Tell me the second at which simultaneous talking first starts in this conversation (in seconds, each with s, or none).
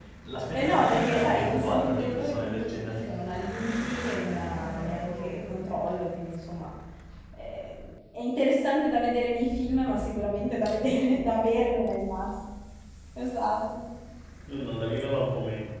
0.5 s